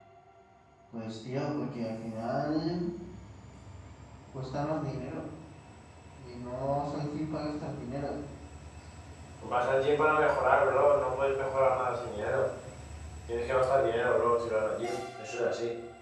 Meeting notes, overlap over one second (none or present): none